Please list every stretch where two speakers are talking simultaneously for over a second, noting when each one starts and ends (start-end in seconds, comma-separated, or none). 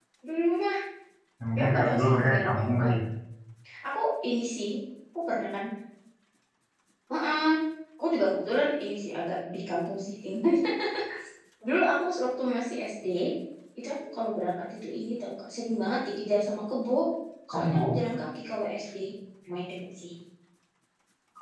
1.6-2.9